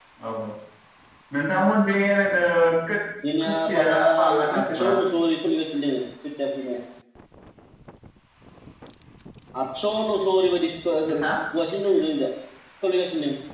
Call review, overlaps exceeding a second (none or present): present